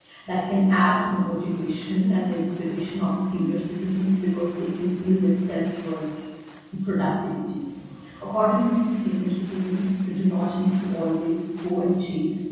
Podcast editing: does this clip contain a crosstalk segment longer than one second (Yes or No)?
No